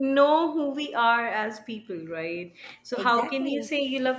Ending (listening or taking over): listening